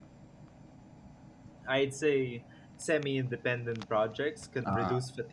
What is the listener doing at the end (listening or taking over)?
listening